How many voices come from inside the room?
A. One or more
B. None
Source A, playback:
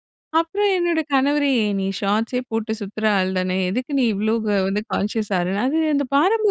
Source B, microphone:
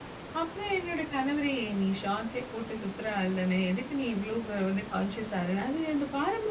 B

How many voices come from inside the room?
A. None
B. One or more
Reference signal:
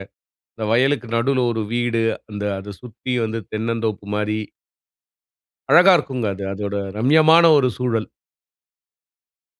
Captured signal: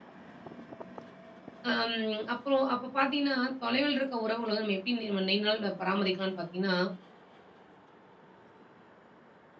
B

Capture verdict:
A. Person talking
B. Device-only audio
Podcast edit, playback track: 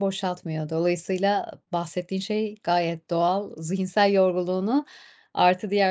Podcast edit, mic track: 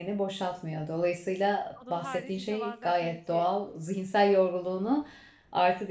A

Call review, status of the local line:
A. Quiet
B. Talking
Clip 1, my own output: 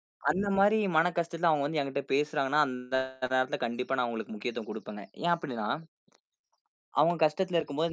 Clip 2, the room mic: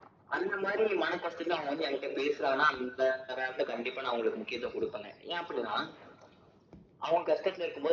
A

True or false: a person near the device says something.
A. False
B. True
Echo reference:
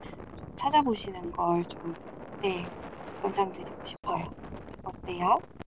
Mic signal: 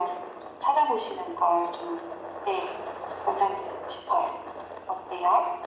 A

